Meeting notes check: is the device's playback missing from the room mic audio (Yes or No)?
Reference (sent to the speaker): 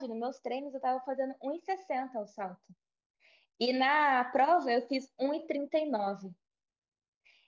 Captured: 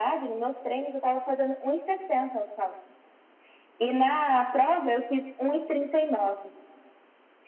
No